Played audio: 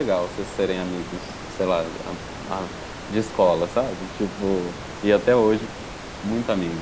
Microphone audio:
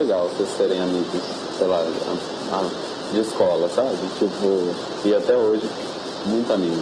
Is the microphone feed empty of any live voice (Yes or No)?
Yes